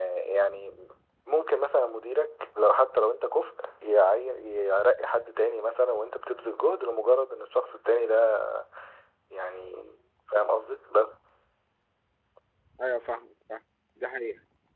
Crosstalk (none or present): none